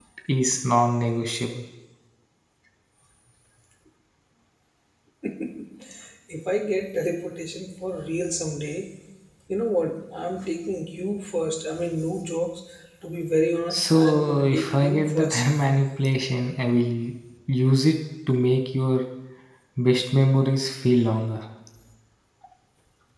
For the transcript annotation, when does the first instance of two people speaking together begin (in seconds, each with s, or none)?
13.7 s